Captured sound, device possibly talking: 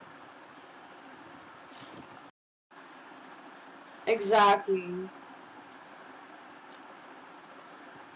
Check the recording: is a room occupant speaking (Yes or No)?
Yes